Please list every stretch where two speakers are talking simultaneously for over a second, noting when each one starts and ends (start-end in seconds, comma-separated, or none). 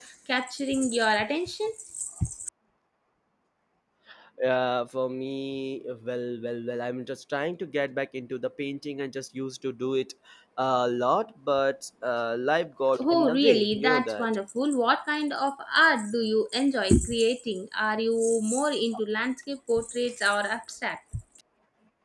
13.0-14.3